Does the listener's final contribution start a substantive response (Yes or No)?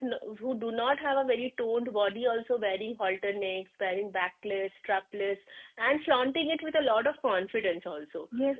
Yes